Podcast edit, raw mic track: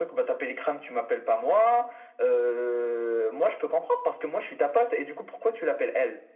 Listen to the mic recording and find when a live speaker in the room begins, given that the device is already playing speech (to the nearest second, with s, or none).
none